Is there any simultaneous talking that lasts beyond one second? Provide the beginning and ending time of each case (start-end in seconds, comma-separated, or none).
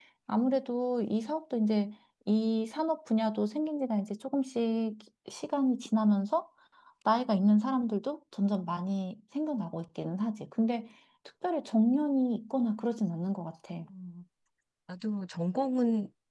none